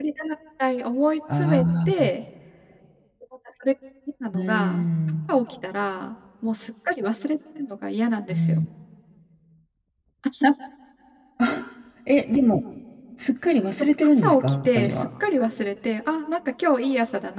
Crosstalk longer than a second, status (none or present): present